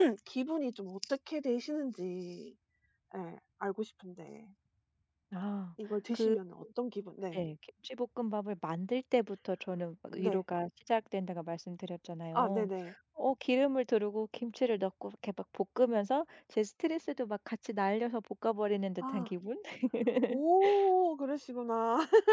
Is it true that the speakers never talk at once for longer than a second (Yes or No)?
Yes